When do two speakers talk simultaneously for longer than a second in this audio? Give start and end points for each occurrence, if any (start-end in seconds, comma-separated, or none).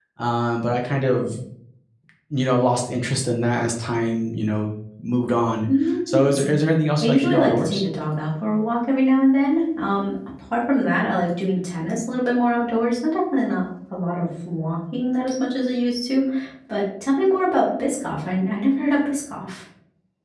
6.1-7.8